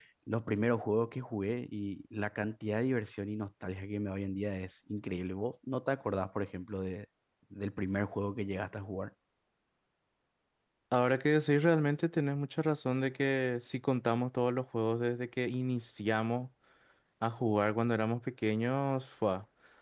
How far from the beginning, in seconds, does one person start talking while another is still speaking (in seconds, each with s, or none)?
none